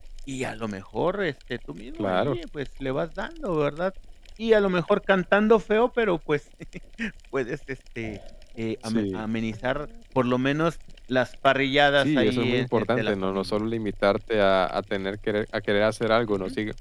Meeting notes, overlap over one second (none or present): present